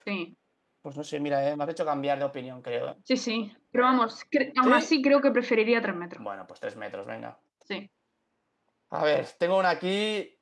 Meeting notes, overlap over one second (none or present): none